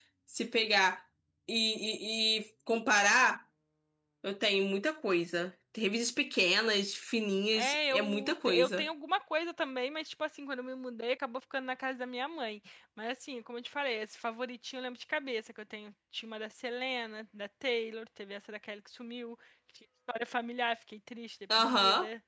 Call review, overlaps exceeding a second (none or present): present